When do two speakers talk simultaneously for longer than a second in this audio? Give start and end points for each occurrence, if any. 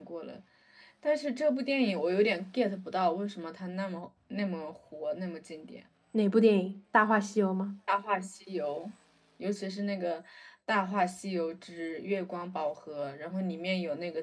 none

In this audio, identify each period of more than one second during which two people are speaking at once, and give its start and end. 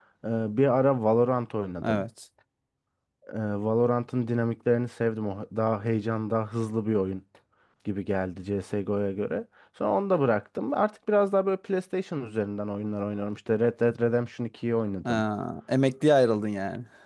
none

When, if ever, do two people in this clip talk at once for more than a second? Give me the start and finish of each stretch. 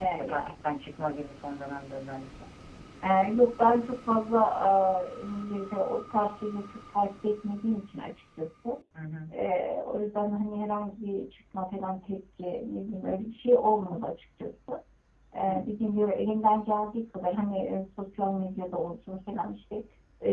none

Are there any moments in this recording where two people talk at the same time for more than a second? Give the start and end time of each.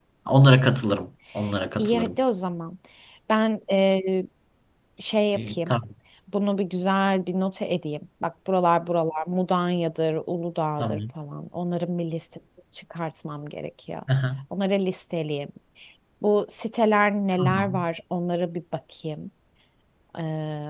none

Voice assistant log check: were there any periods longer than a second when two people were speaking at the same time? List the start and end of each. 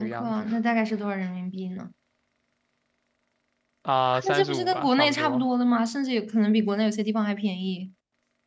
4.1-5.4

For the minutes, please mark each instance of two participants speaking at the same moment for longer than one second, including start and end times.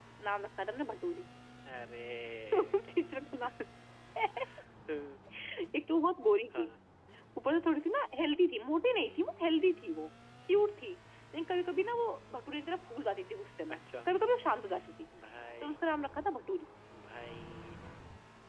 none

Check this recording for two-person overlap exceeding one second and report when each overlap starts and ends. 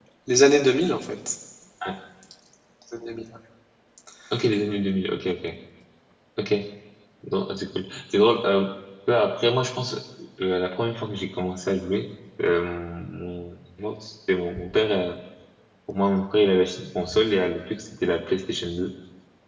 none

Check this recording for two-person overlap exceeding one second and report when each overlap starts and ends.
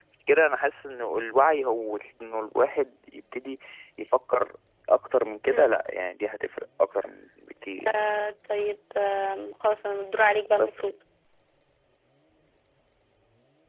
none

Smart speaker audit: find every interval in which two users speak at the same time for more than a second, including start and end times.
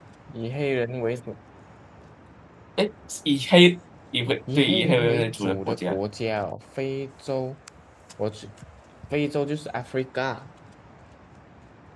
4.5-6.0

